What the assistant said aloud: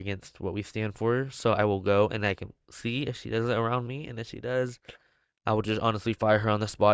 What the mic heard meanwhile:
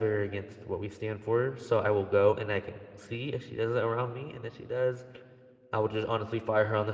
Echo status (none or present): present